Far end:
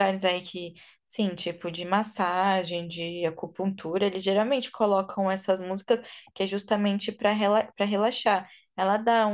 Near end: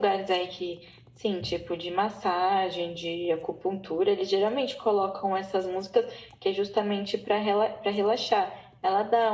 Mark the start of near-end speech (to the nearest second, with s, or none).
none